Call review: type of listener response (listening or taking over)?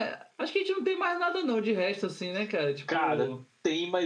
taking over